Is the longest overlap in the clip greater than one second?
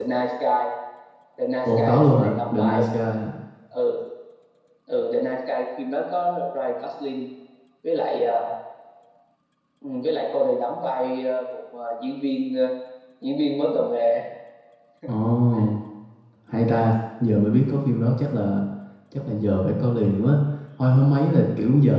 Yes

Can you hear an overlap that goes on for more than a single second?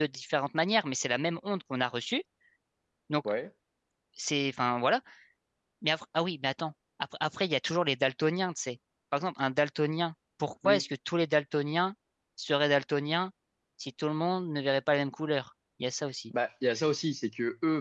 No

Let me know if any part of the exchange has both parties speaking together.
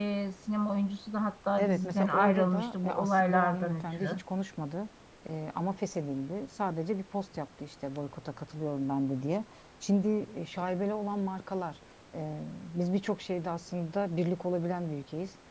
Yes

